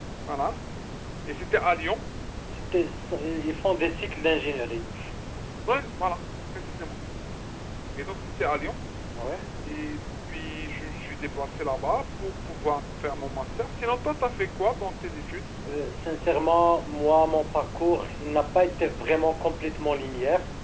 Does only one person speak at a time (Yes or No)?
Yes